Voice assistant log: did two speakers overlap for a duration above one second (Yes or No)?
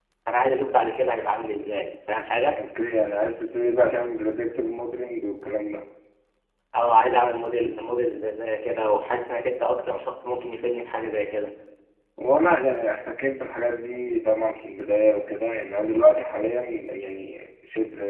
No